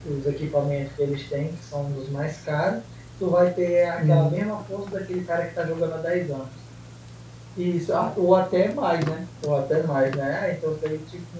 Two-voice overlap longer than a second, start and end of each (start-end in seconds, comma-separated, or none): none